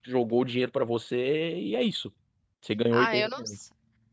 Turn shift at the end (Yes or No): Yes